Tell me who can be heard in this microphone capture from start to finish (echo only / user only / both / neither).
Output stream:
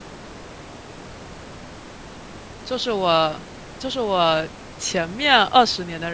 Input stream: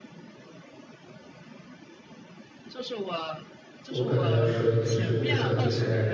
both